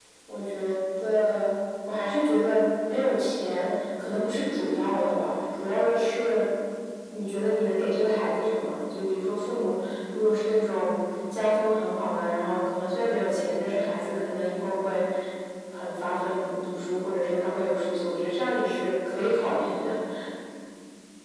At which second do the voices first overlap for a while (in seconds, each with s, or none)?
none